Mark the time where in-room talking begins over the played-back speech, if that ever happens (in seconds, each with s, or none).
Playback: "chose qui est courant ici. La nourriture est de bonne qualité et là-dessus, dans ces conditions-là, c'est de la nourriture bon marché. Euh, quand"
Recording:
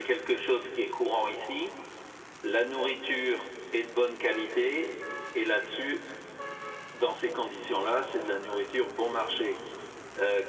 none